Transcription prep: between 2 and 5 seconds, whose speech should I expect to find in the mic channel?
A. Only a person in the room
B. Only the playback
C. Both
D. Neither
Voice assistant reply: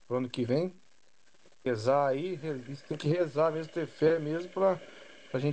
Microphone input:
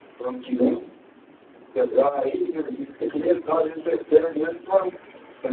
B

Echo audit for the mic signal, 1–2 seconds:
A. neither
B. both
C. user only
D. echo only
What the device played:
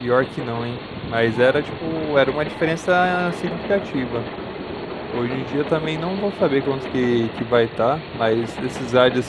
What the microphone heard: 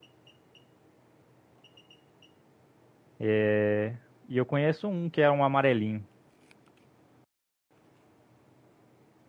A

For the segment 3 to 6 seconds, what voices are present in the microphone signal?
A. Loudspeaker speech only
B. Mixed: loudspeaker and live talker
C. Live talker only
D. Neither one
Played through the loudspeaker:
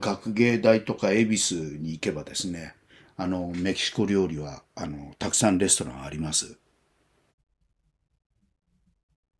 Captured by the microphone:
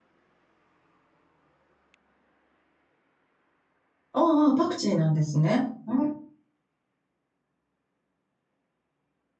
C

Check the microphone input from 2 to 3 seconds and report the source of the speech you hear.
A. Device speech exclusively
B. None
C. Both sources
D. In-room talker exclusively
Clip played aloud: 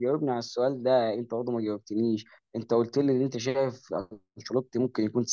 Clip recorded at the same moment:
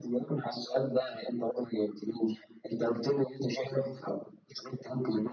A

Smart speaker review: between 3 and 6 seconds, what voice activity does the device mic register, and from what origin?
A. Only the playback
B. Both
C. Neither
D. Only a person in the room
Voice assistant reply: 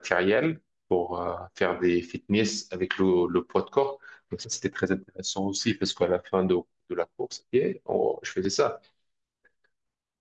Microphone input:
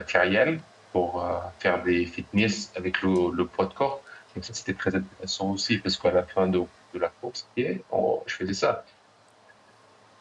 A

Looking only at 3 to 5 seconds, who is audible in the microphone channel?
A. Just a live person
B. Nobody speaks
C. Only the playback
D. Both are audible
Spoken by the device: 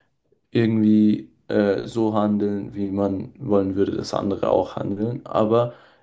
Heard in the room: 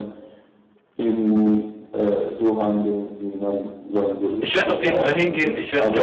D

